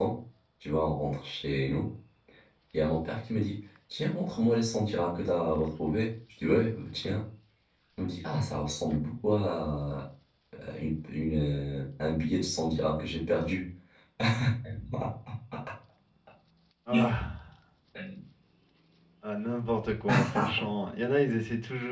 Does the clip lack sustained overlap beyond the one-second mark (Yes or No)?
Yes